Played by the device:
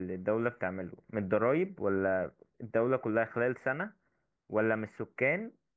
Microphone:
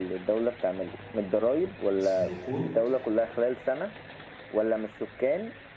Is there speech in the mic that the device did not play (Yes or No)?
Yes